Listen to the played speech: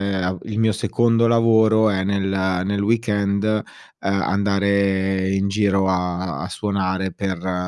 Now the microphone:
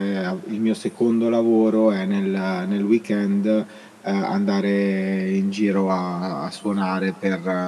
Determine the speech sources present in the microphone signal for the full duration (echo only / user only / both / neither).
echo only